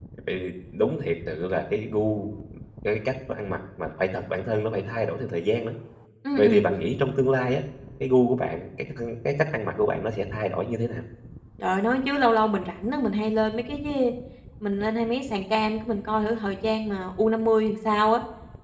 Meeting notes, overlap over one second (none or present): none